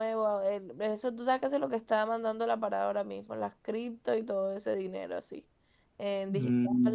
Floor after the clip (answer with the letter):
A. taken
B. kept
B